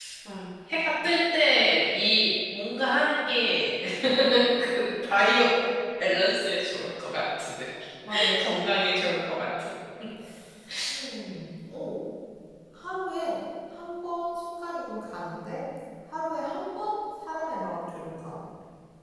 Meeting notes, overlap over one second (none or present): none